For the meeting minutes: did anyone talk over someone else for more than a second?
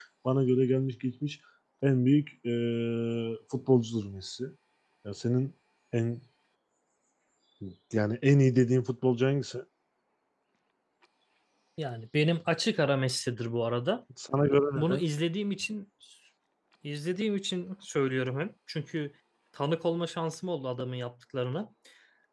No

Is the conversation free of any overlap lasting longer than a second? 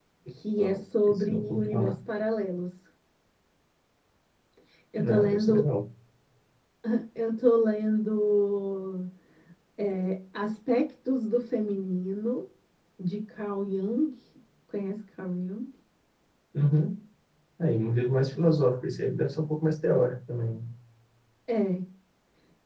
No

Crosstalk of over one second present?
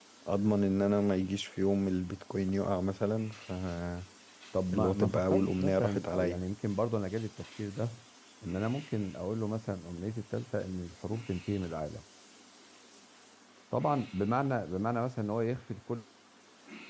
Yes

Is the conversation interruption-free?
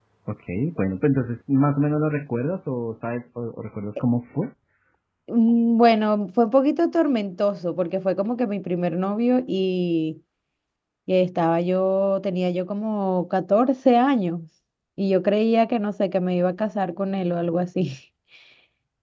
Yes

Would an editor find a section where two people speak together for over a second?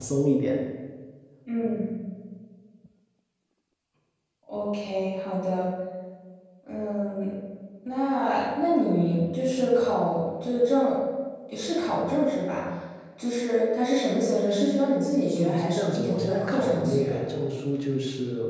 Yes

